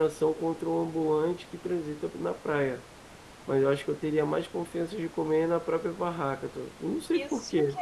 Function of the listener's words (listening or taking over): taking over